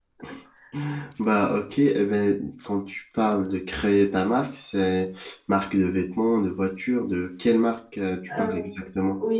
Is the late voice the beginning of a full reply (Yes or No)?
Yes